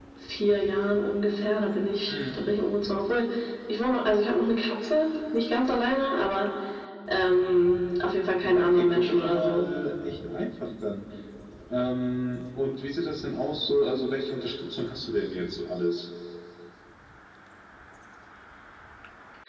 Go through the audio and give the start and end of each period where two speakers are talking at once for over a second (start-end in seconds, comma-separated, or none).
8.4-9.6